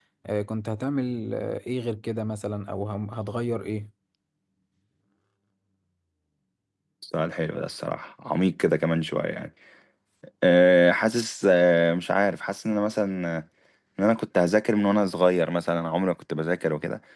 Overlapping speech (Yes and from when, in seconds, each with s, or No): No